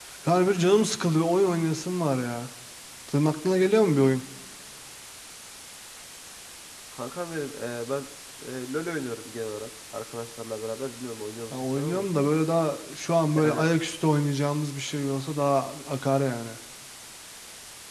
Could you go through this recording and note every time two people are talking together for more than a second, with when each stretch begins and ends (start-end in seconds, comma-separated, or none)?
none